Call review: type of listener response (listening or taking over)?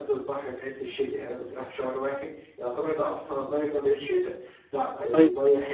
listening